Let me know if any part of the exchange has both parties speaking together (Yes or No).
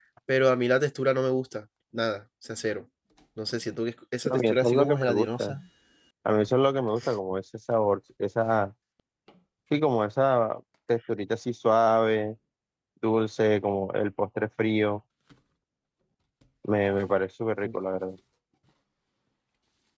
Yes